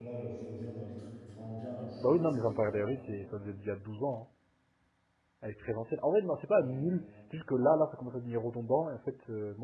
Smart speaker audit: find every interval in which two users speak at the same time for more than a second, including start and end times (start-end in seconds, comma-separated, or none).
2.0-3.2